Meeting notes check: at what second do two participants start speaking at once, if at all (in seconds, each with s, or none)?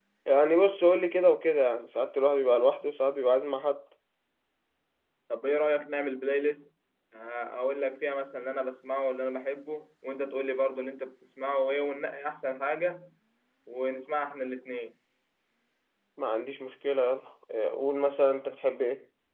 none